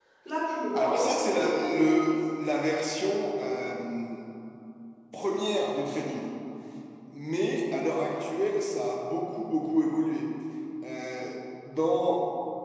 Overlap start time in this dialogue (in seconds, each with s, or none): 0.7 s